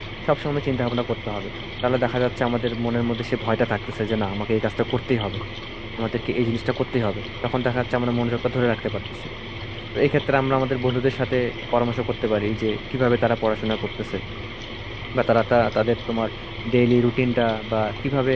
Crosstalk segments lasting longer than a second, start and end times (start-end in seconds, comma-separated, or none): none